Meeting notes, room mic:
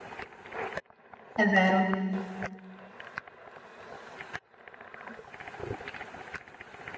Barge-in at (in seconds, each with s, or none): 1.4 s